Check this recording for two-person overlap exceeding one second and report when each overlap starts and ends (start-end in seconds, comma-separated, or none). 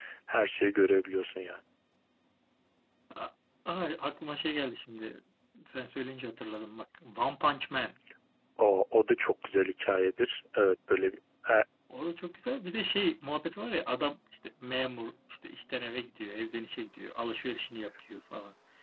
none